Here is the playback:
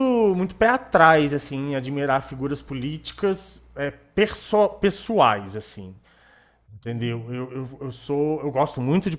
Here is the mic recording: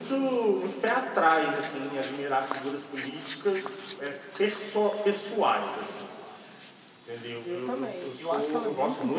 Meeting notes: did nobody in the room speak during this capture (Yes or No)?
No